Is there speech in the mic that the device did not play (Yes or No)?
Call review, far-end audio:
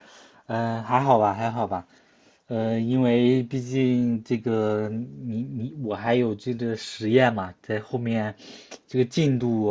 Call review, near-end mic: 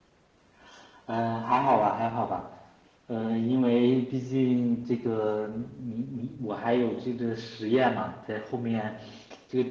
No